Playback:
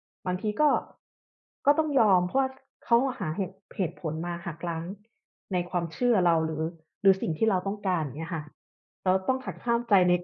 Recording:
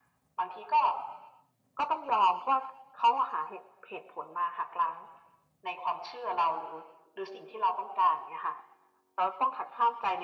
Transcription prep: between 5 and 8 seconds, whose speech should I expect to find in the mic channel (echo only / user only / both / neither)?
echo only